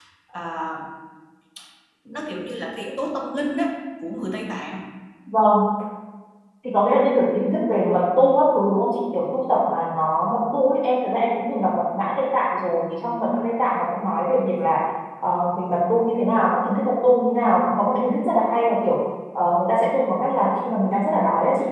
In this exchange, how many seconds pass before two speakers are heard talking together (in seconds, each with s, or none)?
none